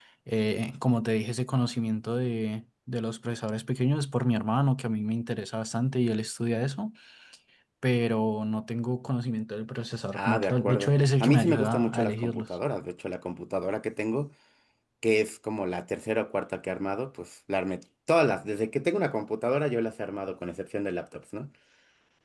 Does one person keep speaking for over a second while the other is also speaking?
Yes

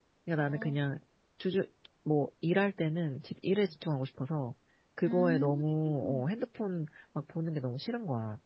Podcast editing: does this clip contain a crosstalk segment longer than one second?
Yes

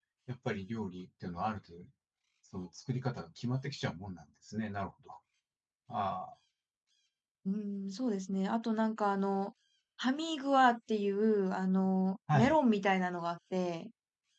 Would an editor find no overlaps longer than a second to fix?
Yes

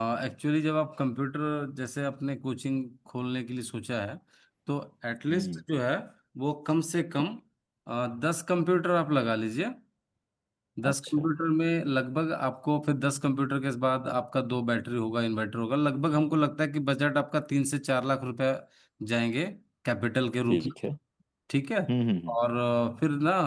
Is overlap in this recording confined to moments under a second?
Yes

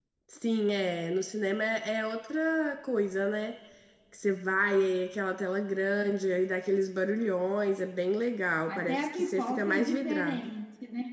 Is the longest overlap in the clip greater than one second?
Yes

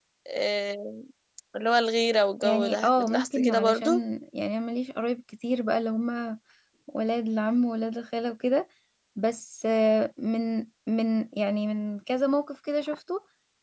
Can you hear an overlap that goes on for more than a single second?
Yes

